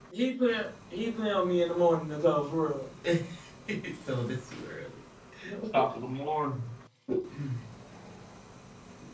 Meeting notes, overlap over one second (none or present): none